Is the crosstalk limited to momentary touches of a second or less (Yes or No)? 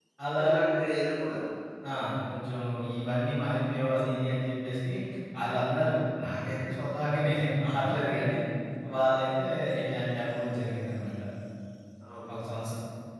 Yes